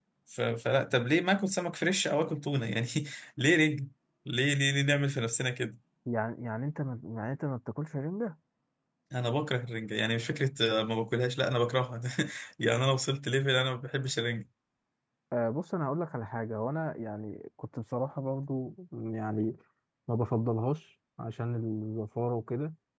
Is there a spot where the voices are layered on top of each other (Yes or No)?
No